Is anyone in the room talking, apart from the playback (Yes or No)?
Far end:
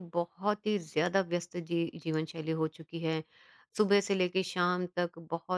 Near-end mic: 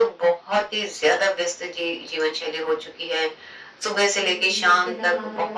Yes